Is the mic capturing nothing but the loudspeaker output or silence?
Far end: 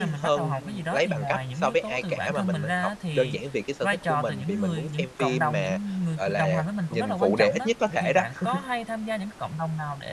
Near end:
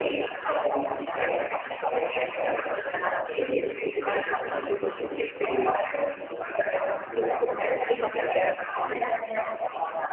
No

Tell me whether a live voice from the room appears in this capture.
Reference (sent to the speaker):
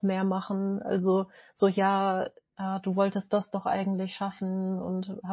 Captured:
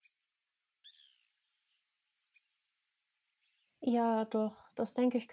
Yes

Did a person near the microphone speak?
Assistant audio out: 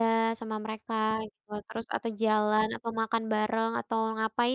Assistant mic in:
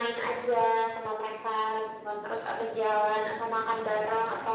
No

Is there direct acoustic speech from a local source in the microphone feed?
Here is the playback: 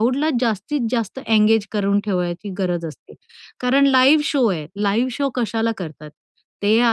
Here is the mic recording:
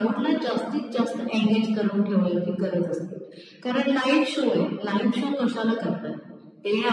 No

